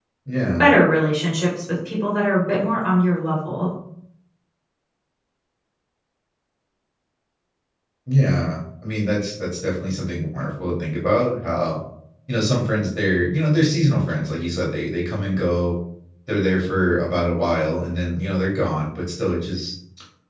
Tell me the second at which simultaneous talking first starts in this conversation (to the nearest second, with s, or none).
none